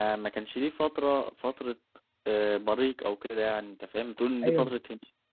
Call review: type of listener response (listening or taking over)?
taking over